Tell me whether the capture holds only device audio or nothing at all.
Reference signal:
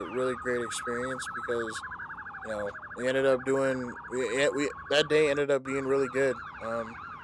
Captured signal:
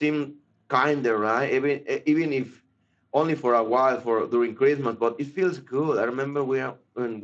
No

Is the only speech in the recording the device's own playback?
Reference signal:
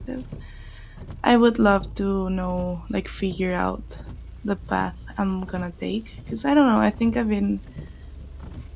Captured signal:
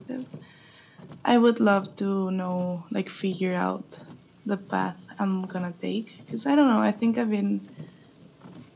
Yes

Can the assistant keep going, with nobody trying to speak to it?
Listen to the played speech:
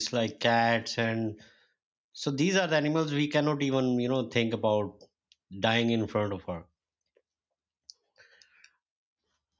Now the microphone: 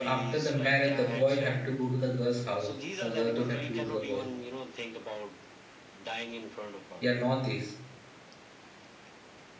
No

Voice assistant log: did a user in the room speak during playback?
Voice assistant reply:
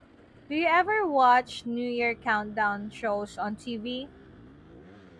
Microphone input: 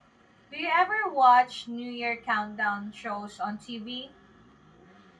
No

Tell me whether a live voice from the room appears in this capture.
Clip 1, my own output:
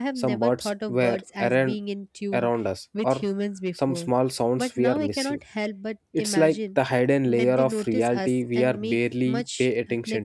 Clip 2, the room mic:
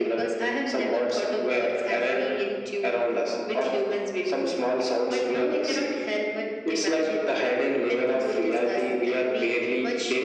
No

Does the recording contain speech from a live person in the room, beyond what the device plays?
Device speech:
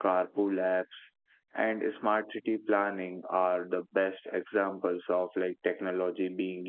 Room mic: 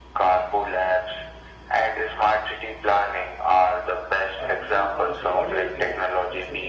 Yes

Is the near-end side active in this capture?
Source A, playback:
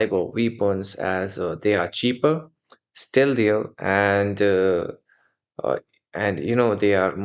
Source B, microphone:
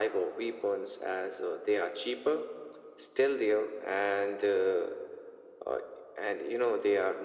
No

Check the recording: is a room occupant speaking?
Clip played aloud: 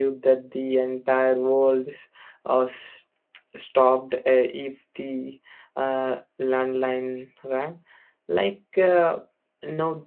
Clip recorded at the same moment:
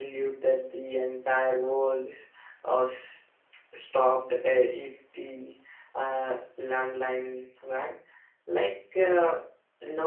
No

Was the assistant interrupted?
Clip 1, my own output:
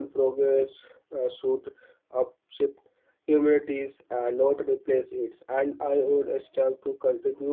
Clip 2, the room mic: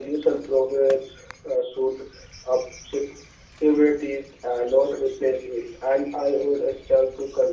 No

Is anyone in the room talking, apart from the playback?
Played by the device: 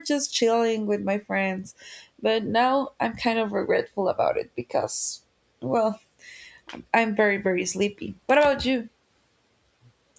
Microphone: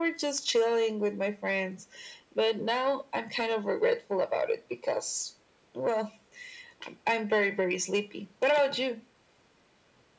No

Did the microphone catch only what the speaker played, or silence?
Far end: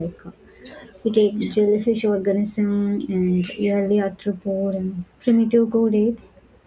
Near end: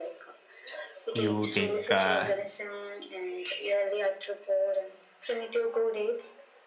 No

